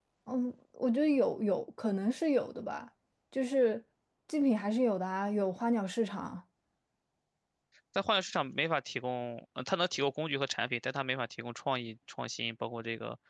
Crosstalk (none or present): none